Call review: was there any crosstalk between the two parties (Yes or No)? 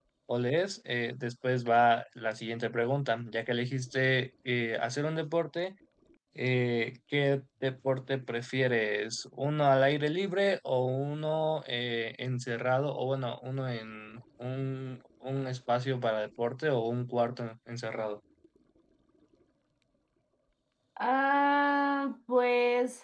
No